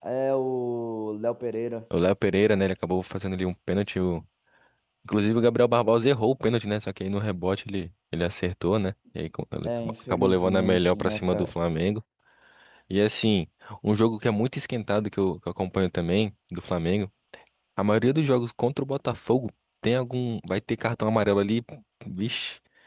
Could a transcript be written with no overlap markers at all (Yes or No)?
No